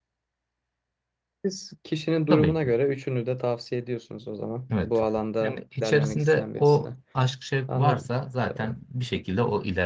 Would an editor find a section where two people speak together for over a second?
Yes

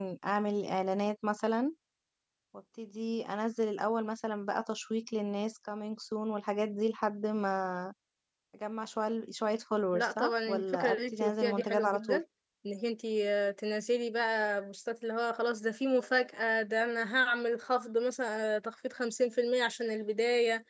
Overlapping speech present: Yes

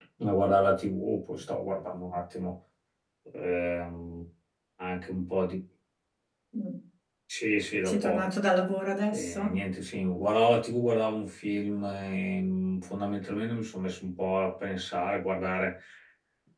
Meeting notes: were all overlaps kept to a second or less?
Yes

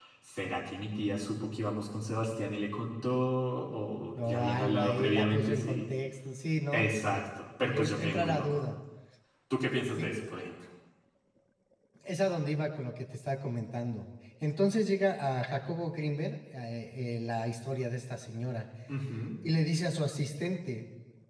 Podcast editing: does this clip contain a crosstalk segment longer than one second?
Yes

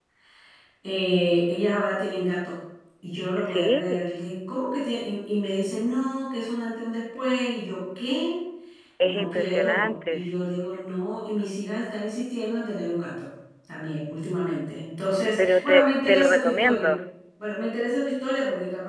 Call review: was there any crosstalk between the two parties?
Yes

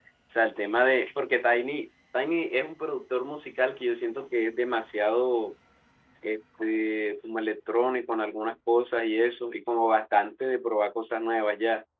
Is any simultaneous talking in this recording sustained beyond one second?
No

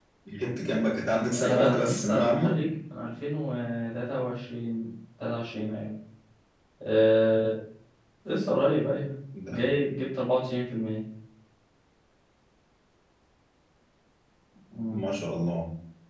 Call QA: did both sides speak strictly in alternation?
No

